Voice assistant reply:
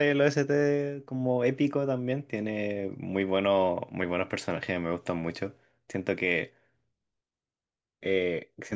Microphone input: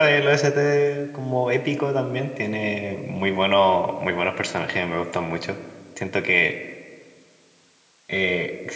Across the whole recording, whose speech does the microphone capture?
echo only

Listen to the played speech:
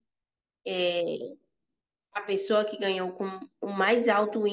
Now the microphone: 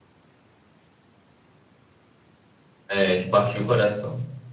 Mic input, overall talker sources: user only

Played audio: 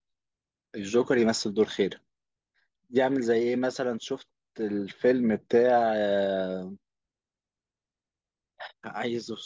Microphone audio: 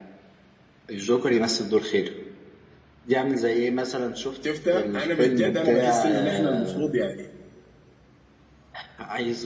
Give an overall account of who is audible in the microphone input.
both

